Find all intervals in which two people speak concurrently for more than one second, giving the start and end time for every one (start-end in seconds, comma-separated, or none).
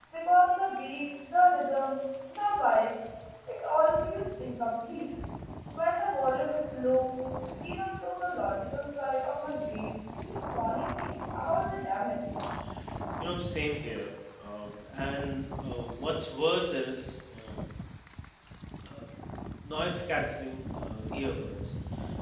none